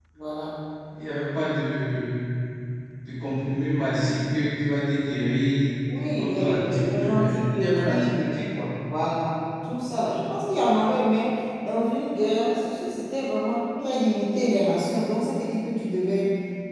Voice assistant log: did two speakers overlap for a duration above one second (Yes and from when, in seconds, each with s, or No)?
Yes, from 5.9 s